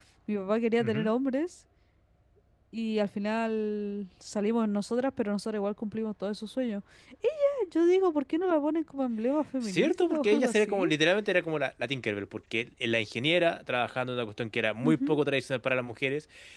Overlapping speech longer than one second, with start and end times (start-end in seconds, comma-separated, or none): 9.6-10.9